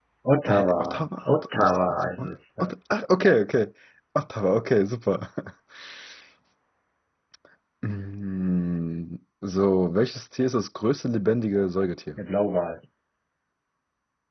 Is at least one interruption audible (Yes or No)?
Yes